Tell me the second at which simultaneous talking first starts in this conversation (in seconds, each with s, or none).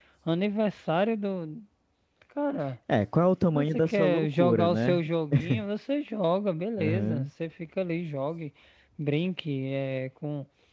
3.5 s